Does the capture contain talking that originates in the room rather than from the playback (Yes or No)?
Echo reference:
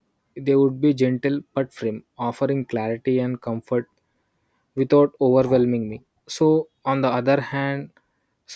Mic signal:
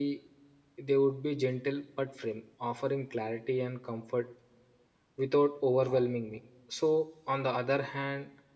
No